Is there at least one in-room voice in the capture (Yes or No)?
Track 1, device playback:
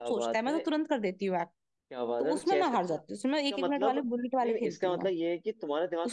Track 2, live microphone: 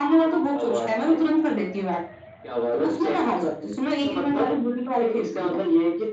No